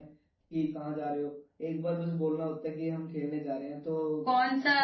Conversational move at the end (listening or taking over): taking over